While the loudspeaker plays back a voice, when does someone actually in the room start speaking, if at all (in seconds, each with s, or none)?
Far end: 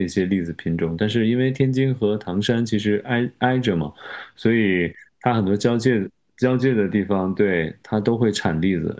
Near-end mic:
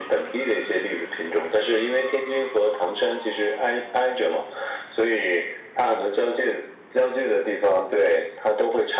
none